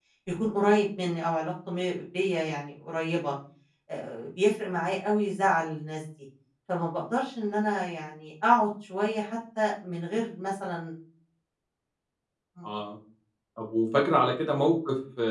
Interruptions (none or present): none